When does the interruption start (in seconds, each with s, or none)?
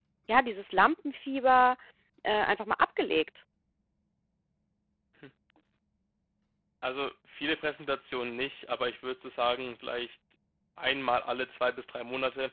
none